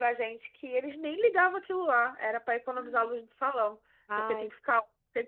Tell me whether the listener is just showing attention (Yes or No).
Yes